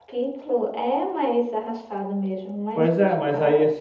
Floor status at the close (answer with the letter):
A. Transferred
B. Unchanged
A